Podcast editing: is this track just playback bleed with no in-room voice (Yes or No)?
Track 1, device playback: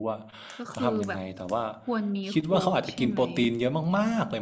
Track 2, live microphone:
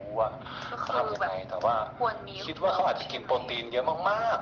Yes